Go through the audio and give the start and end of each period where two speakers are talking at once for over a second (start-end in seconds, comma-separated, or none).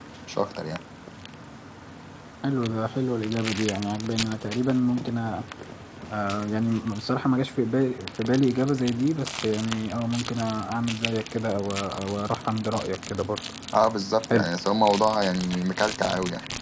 none